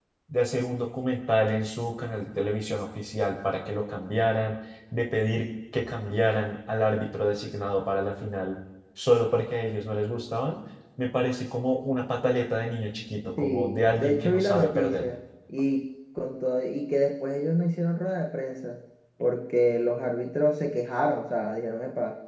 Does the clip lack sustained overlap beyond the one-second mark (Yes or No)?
No